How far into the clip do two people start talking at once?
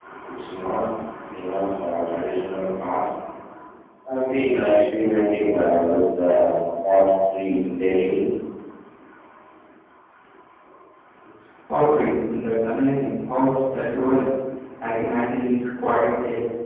none

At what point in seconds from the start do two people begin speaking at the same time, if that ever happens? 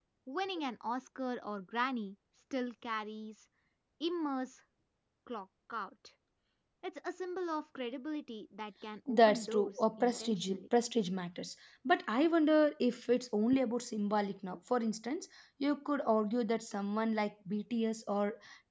9.1 s

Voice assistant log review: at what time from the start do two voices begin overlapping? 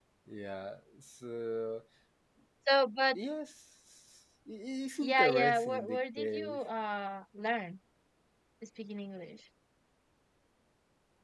5.0 s

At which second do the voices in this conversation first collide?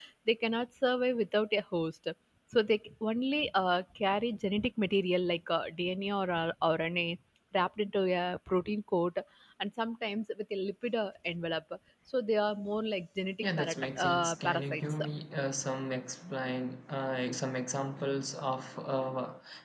13.4 s

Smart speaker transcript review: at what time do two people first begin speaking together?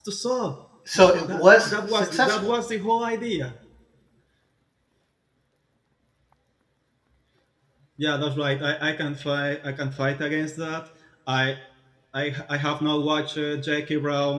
0.9 s

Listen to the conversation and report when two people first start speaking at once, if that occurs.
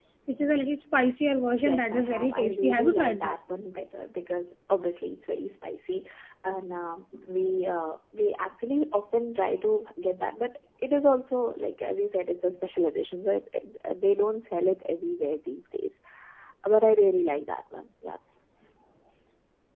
1.6 s

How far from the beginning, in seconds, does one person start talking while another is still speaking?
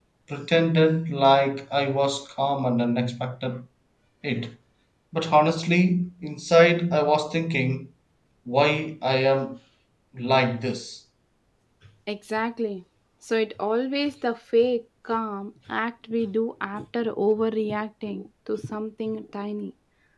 none

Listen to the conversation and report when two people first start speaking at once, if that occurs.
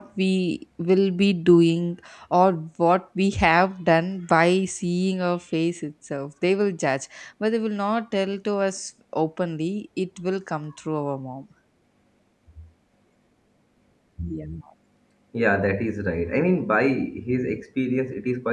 none

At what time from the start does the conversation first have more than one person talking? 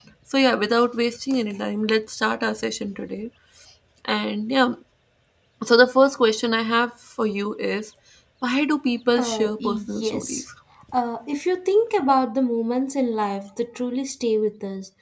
9.2 s

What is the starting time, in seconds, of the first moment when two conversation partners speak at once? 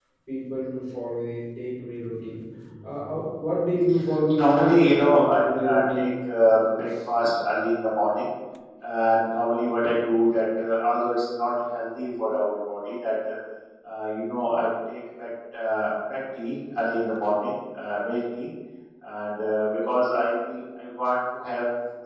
4.4 s

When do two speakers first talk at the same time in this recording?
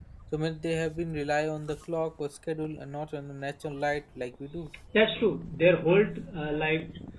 none

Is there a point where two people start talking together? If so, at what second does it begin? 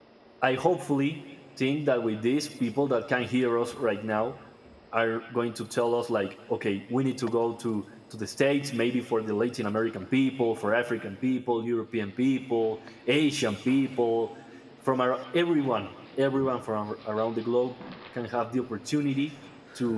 none

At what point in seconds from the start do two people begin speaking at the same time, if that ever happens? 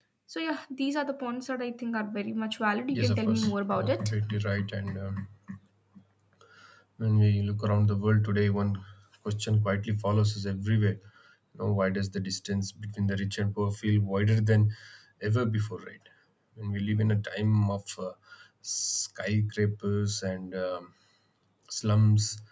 2.9 s

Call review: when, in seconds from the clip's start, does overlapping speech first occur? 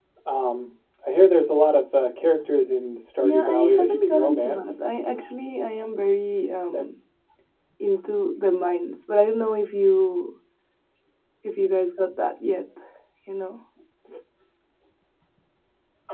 3.2 s

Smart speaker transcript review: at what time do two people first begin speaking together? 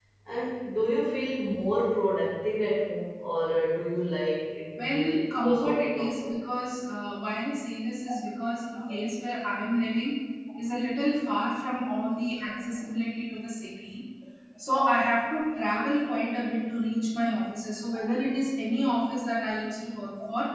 4.8 s

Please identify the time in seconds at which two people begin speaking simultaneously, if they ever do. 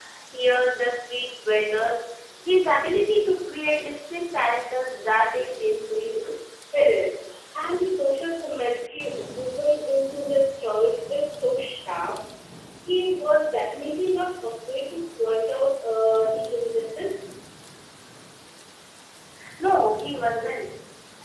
none

